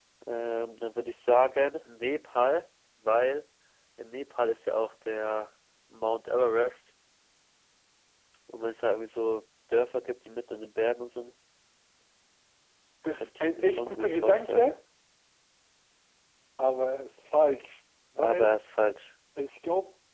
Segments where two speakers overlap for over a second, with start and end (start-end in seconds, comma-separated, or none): 13.1-14.7